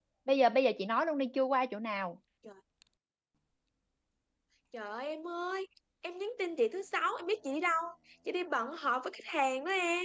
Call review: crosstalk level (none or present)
none